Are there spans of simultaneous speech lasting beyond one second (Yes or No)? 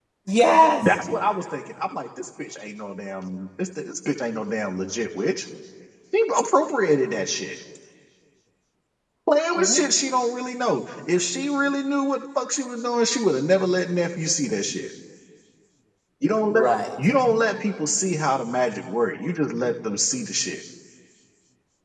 No